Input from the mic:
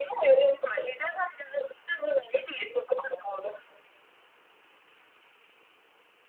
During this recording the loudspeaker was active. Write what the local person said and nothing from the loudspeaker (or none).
none